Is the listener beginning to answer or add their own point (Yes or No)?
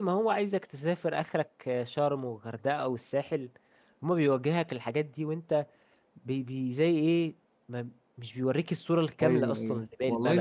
Yes